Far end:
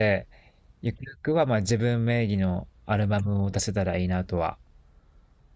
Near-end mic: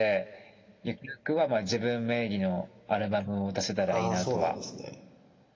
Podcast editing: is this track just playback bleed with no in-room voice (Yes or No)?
No